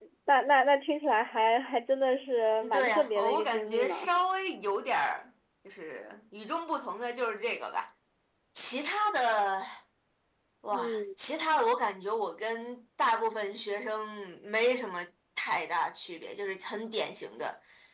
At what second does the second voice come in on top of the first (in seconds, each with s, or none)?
2.6 s